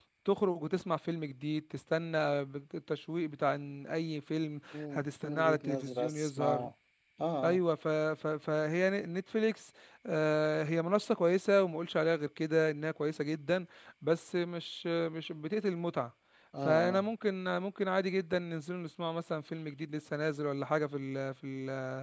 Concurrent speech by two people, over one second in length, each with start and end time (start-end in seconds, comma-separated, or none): 4.7-6.7